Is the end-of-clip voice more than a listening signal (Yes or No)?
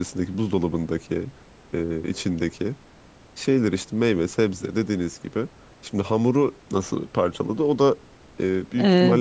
Yes